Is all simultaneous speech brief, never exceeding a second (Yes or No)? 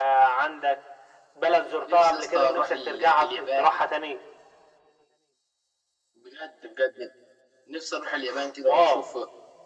No